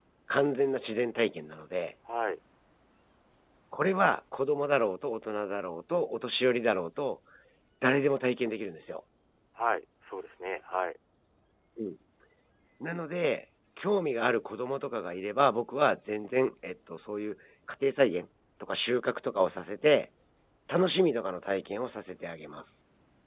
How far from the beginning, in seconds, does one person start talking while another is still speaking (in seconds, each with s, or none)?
none